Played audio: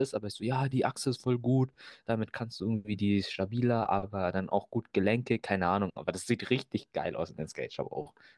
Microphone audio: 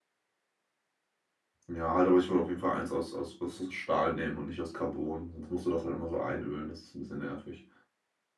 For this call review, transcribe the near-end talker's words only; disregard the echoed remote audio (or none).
Ja, halt, aber ich würde auf jeden Fall eins aus, aus, was aus Stahl nehmen und nicht aus Carbon. Sonst musst du das halt immer so einölen, das ist ein bisschen nervig.